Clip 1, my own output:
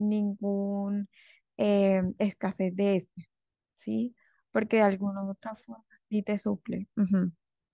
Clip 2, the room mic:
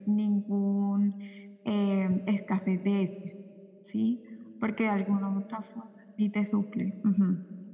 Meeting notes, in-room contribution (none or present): none